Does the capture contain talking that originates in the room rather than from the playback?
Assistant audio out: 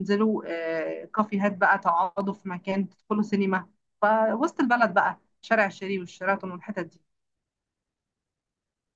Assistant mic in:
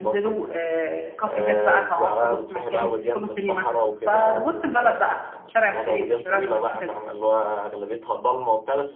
Yes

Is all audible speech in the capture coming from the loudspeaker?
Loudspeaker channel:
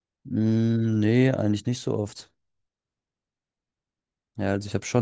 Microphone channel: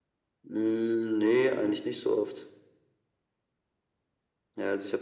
Yes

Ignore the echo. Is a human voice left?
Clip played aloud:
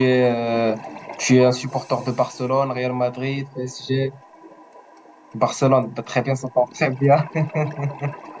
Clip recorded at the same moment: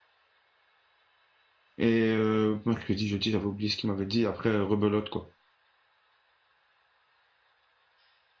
Yes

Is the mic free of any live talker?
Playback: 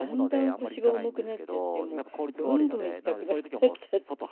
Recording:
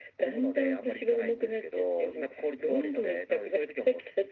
Yes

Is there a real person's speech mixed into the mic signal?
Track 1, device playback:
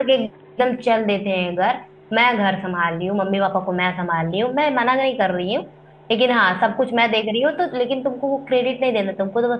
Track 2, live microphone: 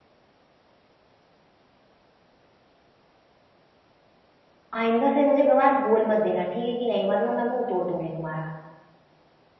Yes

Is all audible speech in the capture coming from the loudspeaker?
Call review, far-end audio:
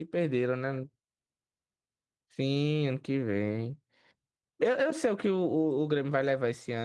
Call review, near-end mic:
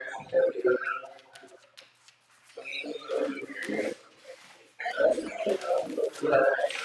Yes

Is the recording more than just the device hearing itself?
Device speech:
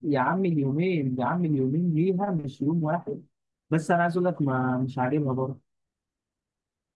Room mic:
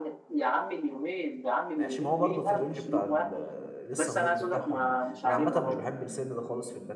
Yes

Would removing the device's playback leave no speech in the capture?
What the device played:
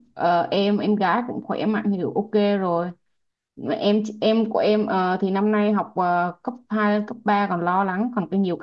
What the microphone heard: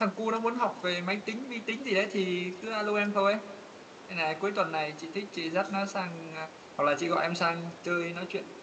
No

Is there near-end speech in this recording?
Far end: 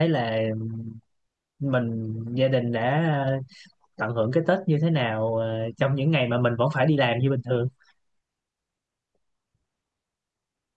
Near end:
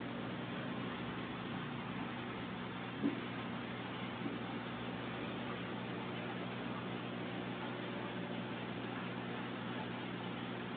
No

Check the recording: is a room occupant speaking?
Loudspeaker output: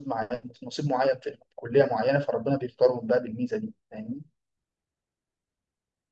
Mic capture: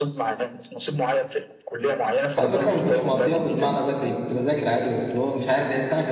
Yes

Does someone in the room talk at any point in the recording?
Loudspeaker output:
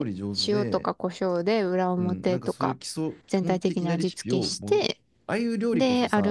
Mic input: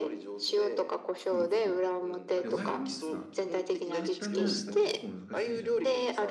Yes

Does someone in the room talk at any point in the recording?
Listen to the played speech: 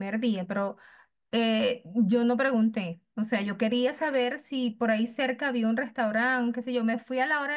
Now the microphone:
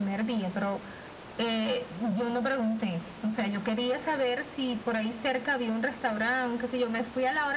No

